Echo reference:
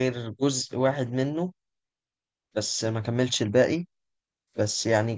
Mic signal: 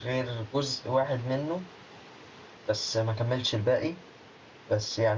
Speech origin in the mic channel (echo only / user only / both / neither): echo only